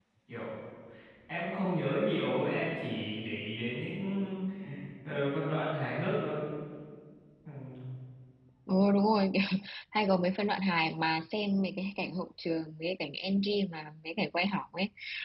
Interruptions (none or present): none